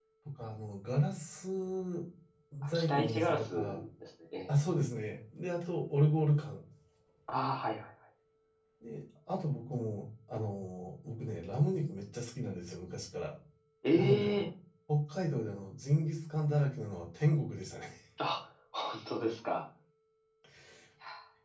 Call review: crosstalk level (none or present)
present